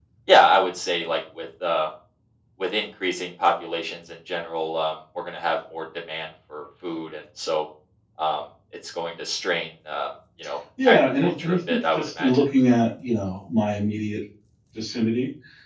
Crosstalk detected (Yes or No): Yes